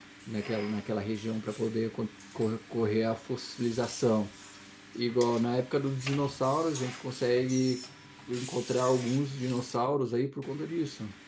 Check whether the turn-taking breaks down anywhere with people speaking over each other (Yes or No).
No